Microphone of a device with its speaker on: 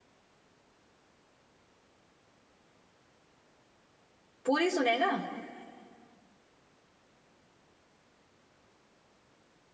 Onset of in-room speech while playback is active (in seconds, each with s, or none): 4.4 s